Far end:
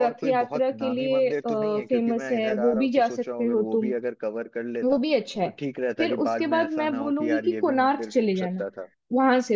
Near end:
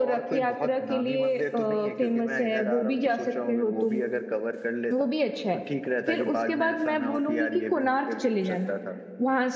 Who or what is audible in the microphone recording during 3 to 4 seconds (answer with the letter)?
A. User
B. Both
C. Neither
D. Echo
D